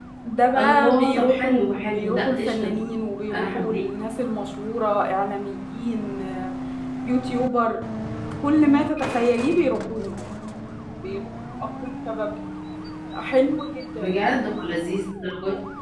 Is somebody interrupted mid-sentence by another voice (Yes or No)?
Yes